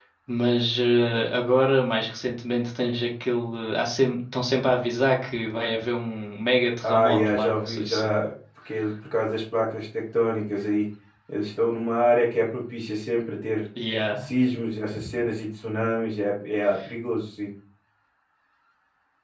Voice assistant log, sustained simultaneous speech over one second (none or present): present